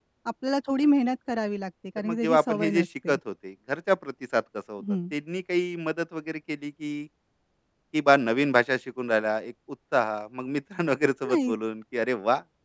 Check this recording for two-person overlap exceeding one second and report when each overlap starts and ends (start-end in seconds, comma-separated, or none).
2.0-3.2